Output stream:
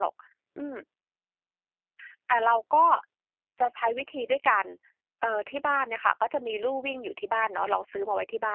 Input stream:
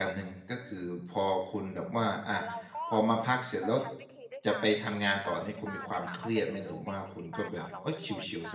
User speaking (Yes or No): Yes